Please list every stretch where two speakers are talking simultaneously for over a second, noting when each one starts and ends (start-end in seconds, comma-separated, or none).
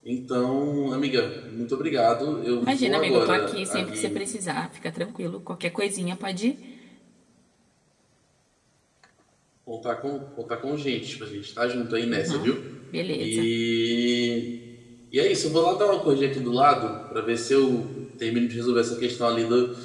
2.6-4.2